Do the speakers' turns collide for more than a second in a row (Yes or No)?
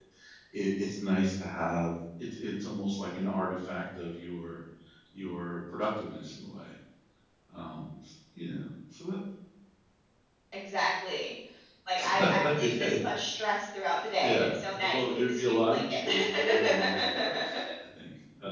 Yes